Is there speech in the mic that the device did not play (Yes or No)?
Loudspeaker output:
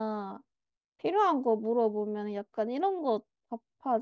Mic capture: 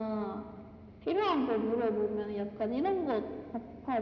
No